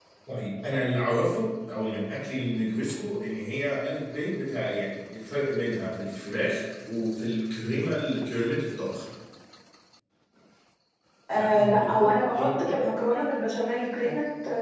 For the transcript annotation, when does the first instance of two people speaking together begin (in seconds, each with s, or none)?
11.3 s